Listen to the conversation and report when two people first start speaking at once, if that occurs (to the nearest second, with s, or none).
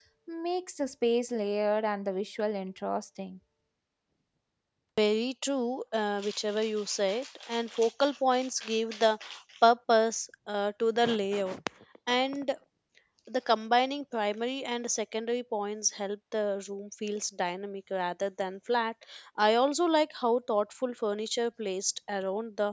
none